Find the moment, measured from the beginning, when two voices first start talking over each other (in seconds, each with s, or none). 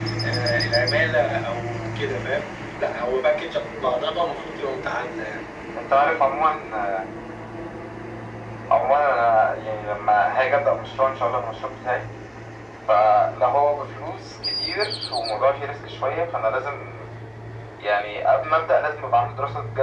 none